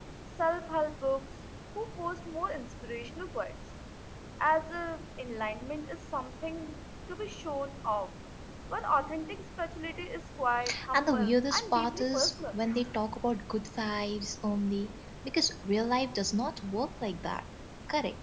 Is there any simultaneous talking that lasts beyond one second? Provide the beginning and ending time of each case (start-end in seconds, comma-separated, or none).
10.9-12.6